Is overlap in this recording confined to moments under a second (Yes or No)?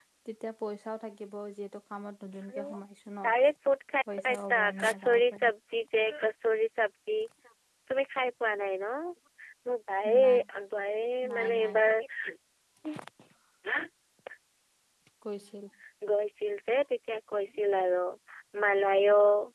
No